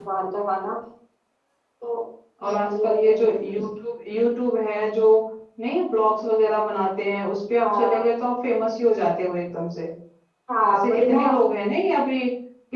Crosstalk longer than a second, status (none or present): present